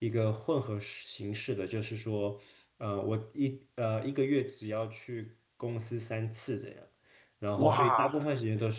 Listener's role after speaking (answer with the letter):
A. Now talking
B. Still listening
B